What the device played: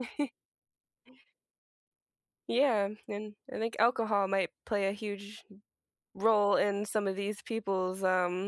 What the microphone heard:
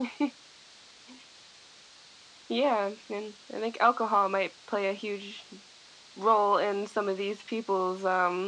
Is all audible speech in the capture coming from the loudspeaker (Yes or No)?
Yes